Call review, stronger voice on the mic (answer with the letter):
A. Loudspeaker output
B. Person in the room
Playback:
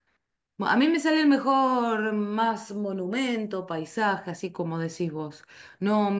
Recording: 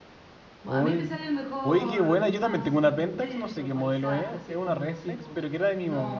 B